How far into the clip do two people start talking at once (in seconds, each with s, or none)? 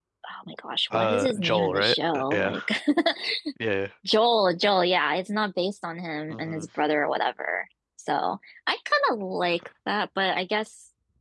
0.9 s